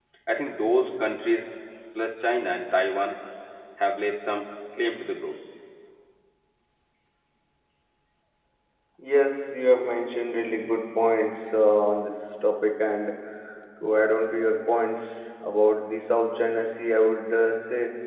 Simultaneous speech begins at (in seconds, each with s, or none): none